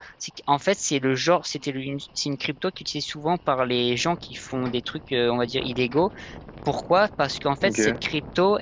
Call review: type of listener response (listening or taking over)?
listening